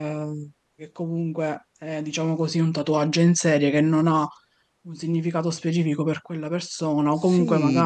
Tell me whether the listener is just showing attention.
No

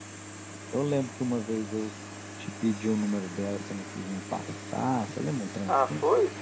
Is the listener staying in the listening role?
No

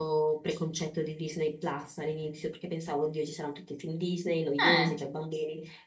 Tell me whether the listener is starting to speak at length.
No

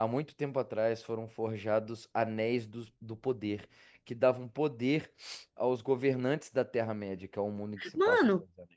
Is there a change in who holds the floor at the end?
Yes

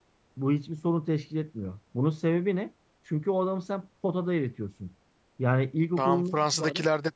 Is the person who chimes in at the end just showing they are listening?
No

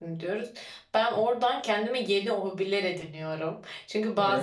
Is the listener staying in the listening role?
Yes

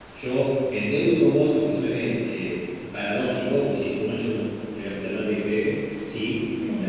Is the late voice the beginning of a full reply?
No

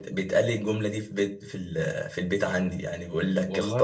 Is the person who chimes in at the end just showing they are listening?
Yes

